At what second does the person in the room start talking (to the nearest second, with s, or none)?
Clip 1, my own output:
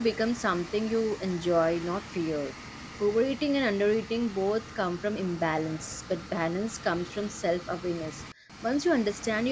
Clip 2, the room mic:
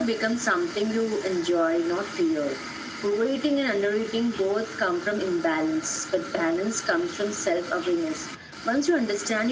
none